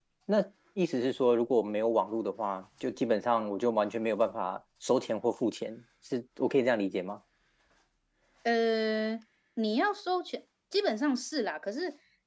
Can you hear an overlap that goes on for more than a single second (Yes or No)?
No